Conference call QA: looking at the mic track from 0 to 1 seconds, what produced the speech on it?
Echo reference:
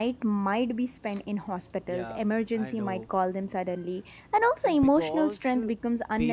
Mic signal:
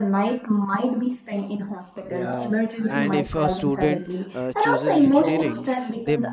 echo only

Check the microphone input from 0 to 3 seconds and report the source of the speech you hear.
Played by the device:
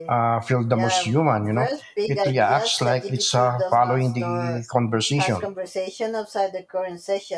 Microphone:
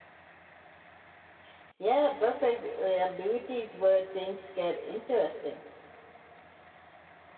user only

